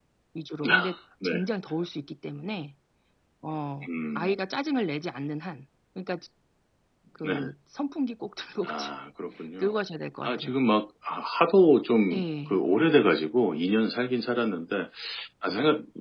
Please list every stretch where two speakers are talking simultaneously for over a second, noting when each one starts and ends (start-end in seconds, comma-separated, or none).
none